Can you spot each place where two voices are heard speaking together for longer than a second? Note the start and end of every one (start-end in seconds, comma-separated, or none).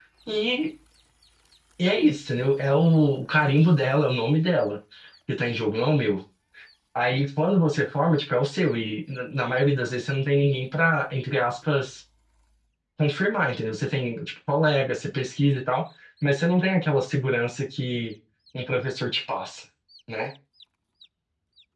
none